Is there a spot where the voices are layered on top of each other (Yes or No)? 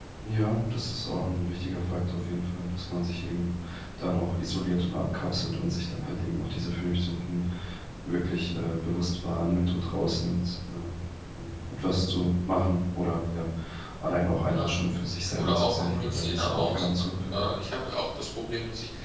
Yes